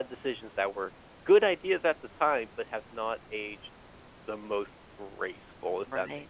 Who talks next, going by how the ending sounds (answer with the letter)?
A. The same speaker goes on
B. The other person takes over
B